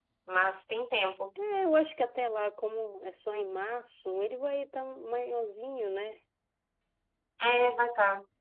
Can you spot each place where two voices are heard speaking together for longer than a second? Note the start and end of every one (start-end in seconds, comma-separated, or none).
none